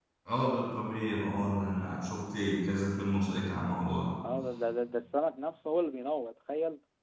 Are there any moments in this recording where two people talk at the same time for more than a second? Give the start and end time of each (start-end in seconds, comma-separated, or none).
none